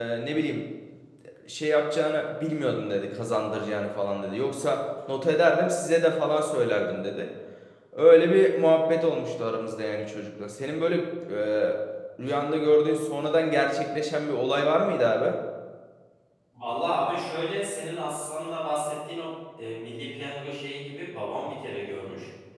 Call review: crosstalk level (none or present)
none